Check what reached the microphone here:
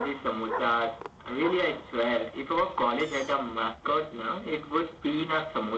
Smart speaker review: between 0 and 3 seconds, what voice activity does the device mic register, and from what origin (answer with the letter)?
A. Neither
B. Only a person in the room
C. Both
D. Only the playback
D